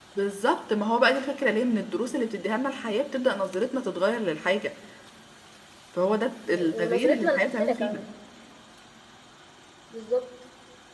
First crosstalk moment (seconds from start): 6.5 s

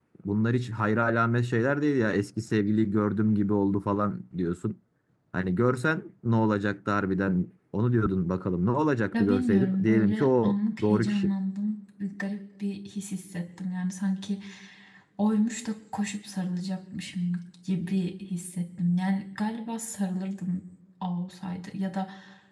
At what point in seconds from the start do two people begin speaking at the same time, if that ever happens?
9.1 s

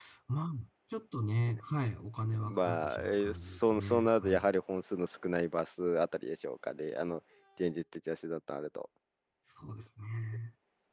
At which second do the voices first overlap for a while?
2.3 s

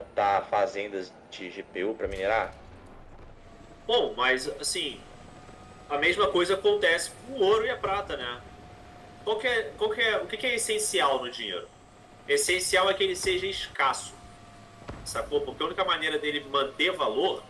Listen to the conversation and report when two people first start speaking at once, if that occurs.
none

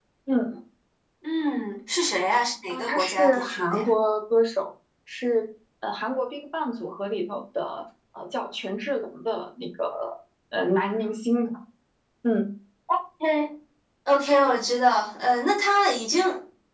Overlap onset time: 2.7 s

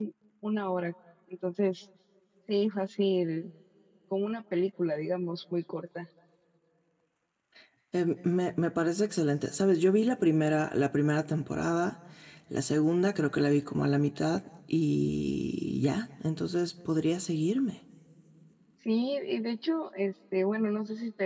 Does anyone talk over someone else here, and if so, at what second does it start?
none

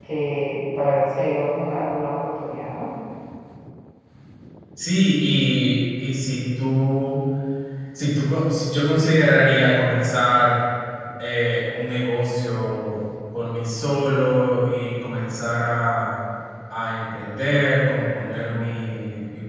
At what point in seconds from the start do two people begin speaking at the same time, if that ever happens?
none

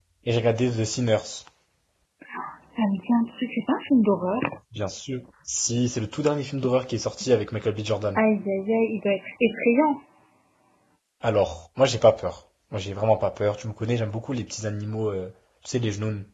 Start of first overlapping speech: none

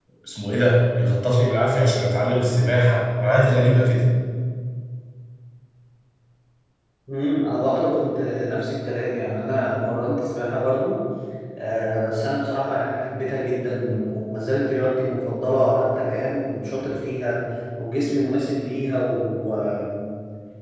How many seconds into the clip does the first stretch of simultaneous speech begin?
none

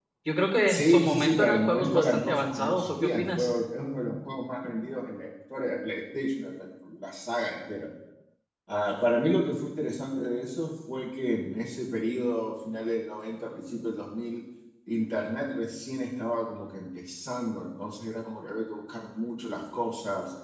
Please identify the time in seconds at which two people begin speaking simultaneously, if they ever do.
0.7 s

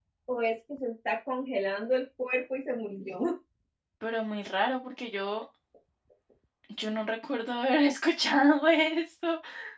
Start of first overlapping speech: none

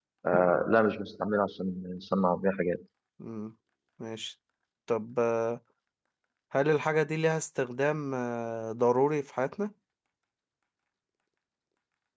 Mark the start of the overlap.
none

